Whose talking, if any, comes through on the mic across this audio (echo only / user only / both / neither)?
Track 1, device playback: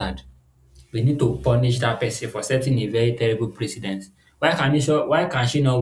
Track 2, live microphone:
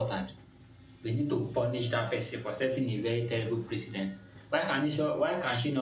echo only